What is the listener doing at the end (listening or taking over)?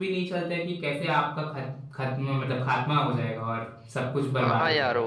taking over